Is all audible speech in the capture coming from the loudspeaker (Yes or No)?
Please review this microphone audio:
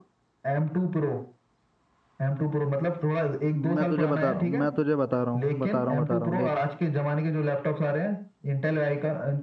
No